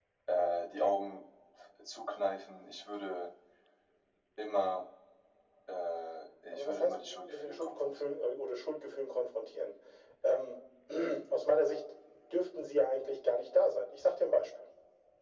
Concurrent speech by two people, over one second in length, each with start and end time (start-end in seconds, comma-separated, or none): 6.5-8.2